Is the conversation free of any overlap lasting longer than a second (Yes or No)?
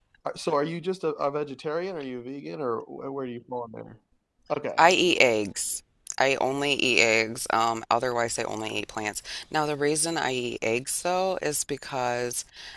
Yes